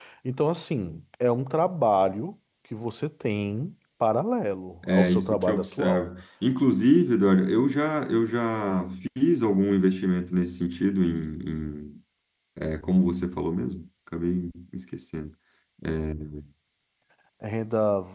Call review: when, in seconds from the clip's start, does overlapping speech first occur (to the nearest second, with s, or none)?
5 s